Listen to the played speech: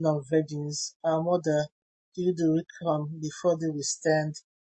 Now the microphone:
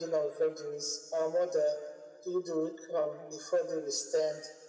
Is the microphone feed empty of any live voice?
Yes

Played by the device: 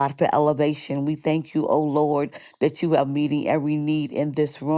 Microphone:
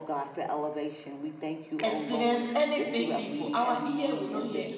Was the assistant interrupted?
Yes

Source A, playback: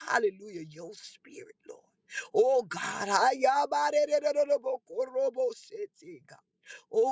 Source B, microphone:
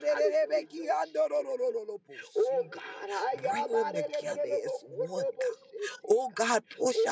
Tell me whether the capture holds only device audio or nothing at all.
No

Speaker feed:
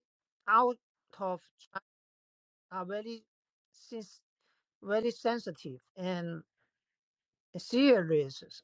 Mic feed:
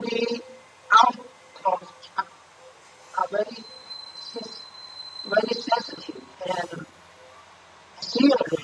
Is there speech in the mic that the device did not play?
No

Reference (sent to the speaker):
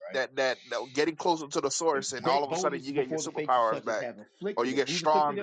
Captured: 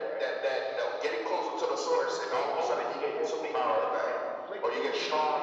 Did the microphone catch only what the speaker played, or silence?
Yes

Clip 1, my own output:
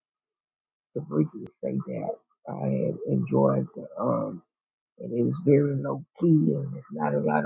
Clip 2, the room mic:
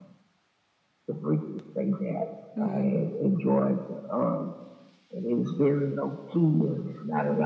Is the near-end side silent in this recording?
No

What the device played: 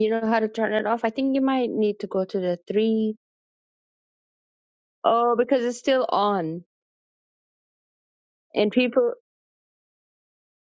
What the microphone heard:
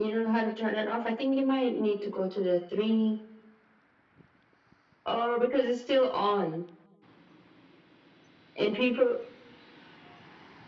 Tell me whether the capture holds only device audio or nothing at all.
Yes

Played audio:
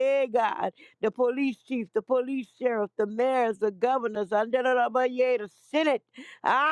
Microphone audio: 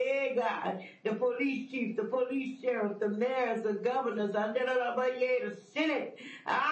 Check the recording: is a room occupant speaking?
No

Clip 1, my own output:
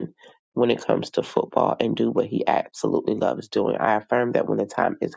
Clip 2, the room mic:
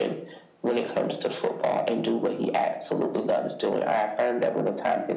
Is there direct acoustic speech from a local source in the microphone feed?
No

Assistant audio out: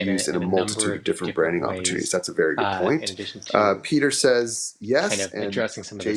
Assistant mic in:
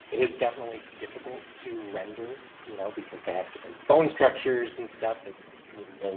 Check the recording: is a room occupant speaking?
Yes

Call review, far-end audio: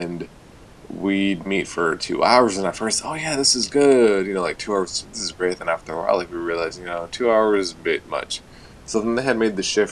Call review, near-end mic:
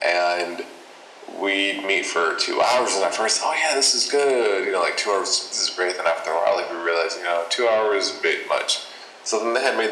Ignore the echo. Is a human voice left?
No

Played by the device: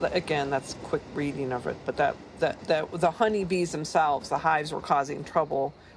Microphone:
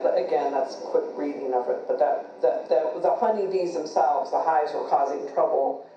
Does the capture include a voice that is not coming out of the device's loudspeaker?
No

